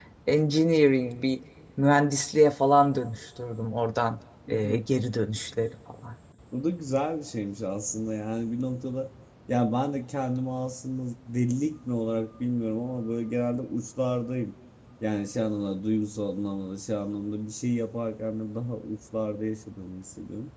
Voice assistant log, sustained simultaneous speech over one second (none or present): none